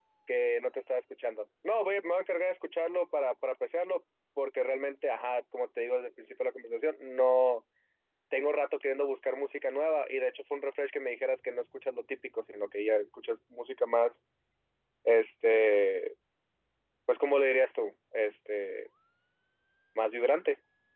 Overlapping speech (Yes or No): No